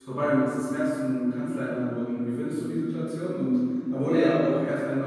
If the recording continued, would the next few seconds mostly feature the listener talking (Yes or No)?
No